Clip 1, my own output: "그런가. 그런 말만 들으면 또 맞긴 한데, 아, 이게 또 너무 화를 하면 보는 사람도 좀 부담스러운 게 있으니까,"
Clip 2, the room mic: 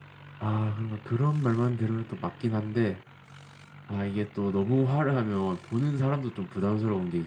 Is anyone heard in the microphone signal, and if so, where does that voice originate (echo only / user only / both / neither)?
echo only